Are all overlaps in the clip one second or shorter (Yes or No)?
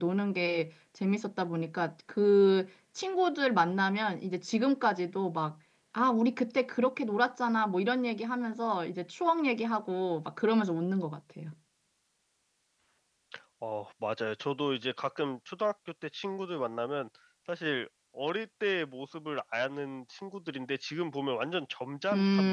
Yes